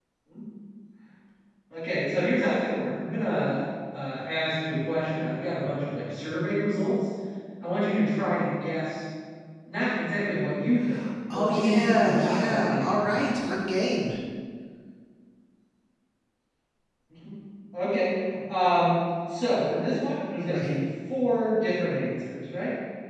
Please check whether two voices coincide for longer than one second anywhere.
Yes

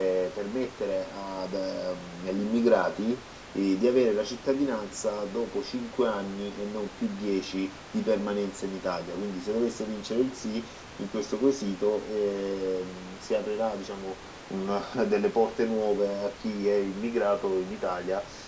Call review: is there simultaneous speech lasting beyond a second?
No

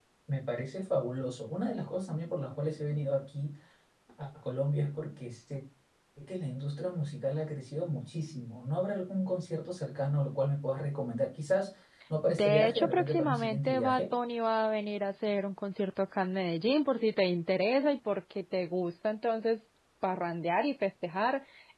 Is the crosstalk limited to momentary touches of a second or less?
No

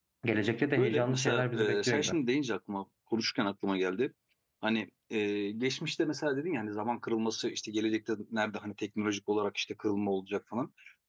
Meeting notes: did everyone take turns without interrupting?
No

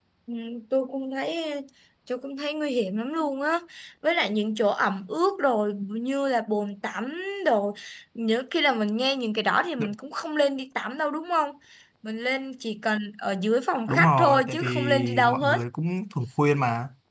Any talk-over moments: Yes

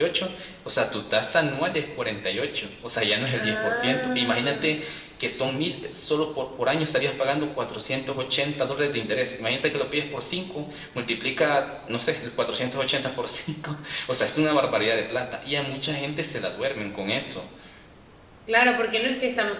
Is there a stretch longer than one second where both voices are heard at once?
Yes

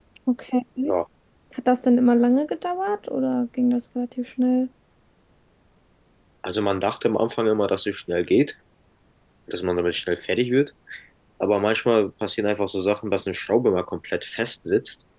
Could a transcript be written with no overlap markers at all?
Yes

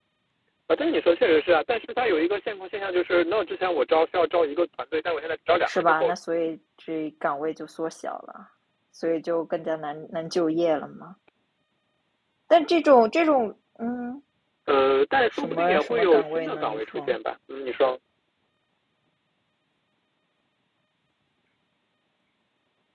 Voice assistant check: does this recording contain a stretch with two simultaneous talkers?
Yes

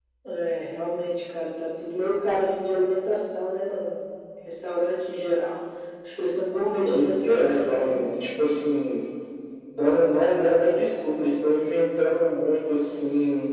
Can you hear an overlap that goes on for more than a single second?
Yes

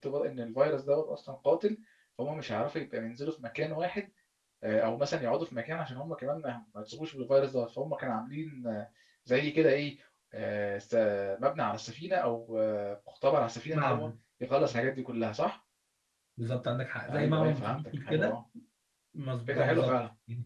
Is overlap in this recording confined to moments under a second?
No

